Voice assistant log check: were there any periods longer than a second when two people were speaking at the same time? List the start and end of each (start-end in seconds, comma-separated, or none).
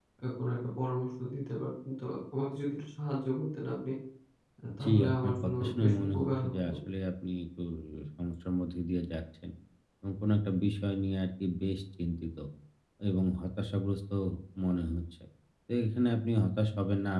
4.8-6.7